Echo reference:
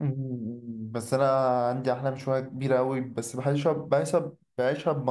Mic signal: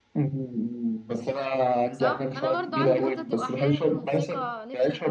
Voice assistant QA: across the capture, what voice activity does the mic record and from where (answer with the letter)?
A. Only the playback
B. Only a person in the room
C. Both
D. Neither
C